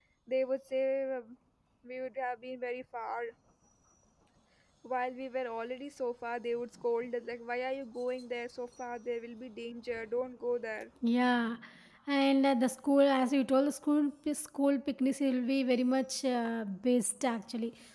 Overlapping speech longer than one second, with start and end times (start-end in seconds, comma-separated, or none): none